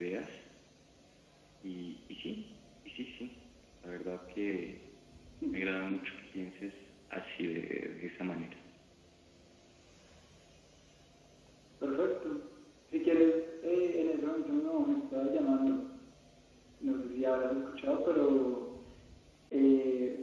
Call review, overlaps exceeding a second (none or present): none